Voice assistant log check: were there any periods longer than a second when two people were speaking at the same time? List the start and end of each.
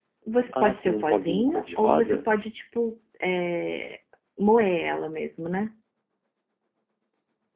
0.5-2.2

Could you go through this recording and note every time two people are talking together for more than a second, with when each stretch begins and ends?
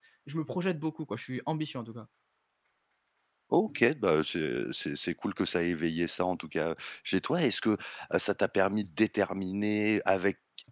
none

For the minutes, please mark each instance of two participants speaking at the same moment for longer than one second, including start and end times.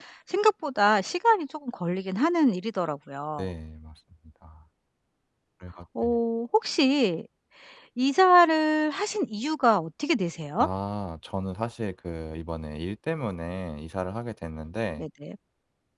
none

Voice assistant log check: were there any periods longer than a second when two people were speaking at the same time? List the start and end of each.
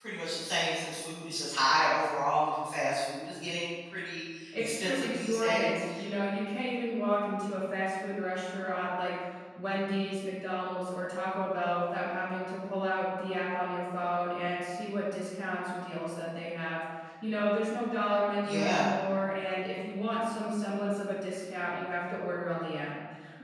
4.6-5.8

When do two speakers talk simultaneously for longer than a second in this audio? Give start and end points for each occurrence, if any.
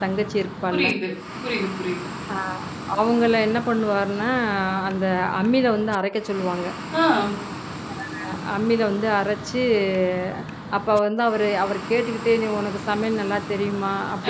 none

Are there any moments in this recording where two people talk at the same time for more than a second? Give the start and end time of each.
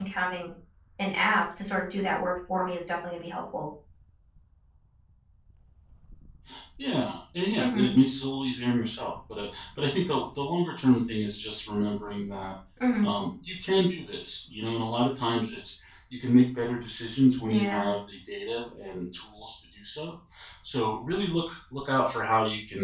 none

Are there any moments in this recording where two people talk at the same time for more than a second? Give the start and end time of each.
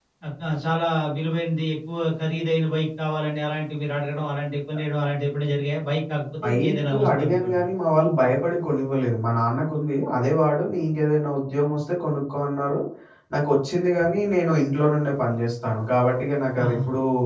6.4-7.6

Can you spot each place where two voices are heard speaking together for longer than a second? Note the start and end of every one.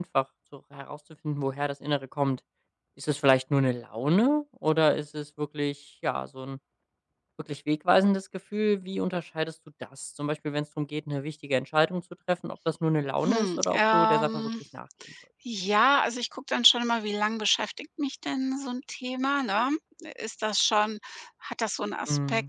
13.2-14.5

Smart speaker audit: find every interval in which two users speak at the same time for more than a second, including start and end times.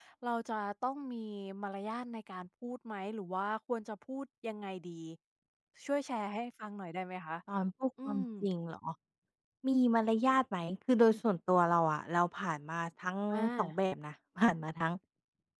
none

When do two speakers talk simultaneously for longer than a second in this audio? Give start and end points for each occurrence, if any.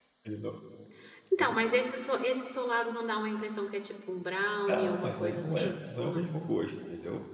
4.7-6.3

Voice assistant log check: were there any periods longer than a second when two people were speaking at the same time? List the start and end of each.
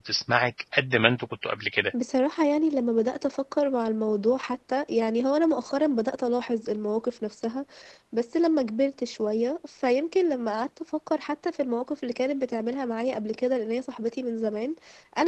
none

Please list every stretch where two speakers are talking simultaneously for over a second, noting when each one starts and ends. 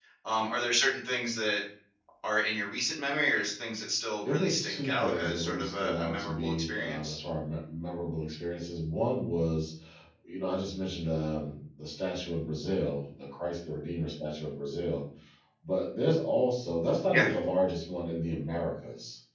4.2-7.2

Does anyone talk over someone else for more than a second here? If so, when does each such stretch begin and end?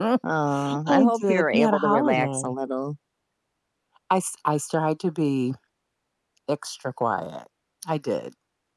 0.9-2.5

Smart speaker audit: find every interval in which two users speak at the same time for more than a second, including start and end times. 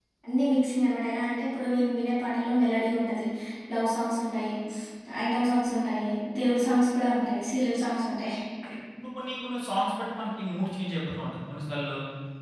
none

